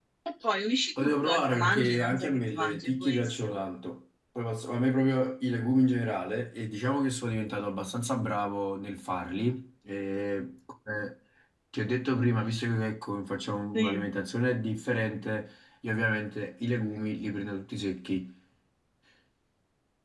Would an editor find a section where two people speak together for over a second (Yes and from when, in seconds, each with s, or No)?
Yes, from 1.0 s